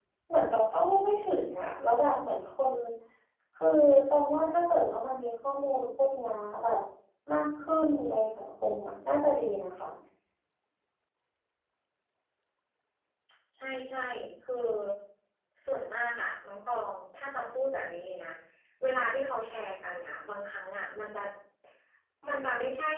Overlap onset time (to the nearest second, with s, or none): none